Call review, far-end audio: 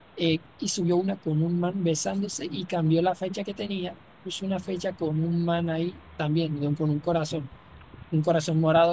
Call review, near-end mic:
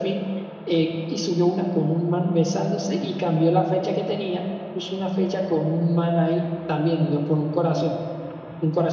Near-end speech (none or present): none